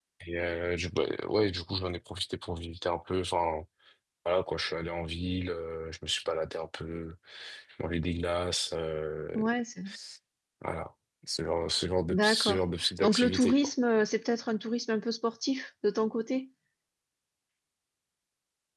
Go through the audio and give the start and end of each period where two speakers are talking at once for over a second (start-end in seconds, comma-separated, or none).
12.1-13.5